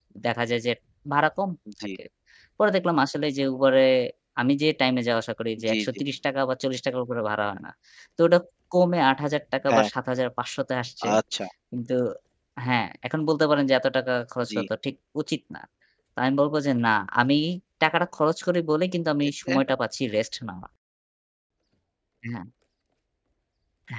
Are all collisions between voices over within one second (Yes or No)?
Yes